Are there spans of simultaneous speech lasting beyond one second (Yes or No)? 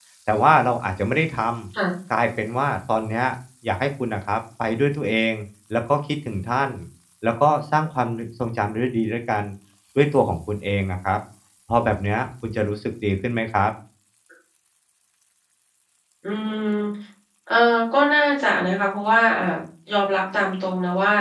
No